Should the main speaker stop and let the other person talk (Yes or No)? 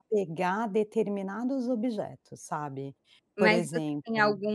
Yes